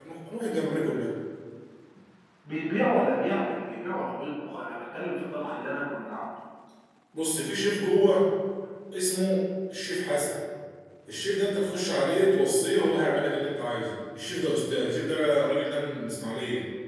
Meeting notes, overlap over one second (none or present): none